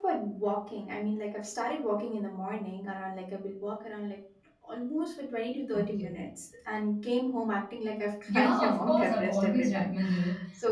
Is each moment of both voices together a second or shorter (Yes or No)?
No